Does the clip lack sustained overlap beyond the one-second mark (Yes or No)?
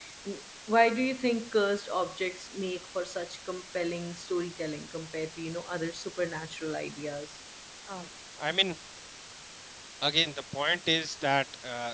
Yes